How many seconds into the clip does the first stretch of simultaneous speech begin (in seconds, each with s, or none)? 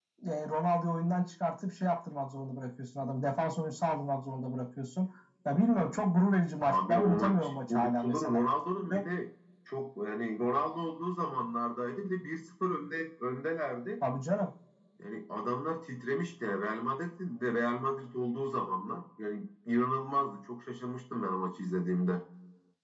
6.7 s